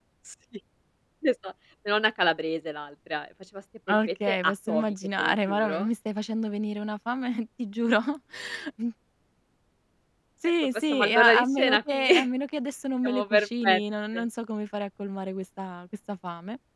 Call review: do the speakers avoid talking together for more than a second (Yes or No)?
No